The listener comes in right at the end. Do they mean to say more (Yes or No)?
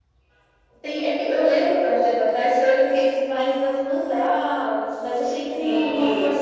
No